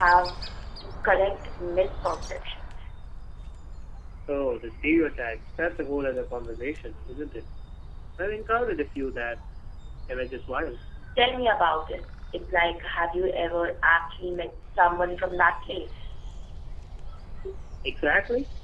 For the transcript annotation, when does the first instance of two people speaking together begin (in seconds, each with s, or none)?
none